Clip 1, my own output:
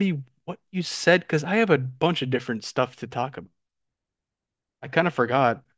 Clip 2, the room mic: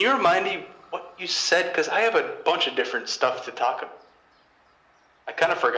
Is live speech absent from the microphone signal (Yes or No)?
Yes